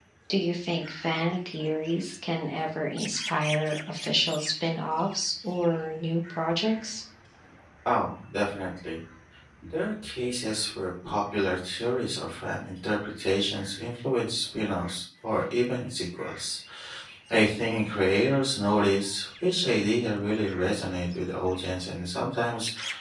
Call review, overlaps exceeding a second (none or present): none